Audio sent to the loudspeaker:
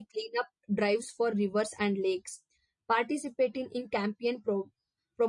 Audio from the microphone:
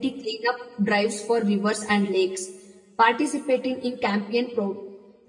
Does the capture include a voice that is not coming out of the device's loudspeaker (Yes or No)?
No